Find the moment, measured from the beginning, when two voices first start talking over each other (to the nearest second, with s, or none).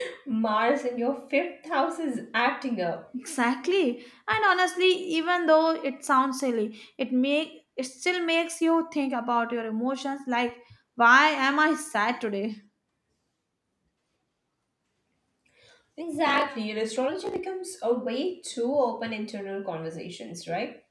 none